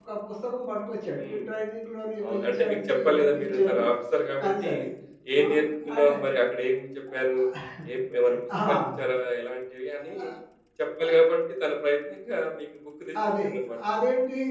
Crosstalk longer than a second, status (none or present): present